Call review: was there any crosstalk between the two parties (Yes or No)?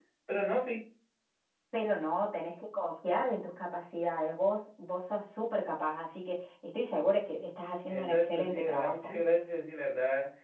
Yes